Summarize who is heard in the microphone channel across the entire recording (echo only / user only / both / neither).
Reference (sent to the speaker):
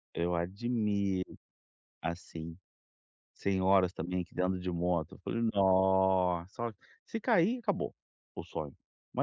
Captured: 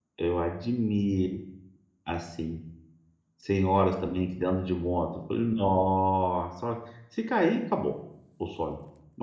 echo only